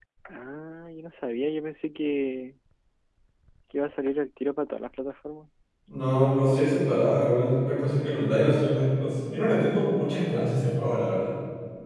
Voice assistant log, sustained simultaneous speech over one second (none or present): none